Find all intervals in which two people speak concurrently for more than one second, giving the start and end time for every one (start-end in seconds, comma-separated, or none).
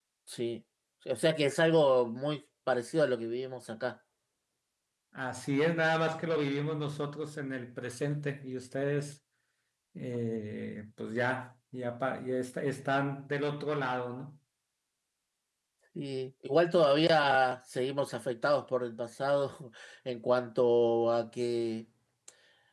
none